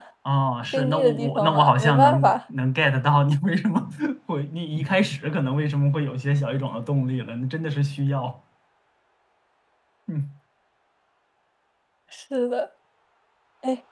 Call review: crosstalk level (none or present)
present